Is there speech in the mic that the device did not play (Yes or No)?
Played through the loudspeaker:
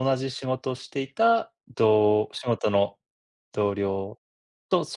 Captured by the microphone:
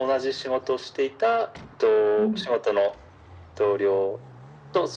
Yes